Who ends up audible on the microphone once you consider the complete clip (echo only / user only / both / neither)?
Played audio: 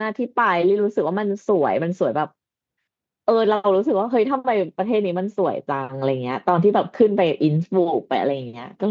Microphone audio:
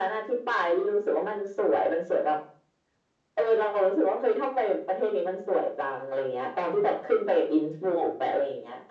echo only